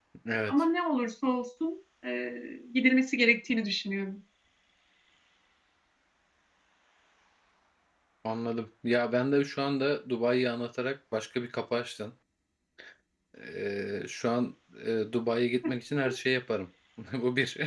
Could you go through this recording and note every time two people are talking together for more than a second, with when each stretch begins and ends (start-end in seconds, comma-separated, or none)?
none